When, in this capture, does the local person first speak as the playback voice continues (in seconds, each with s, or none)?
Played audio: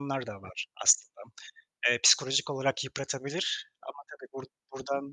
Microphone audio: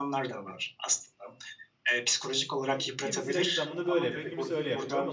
2.6 s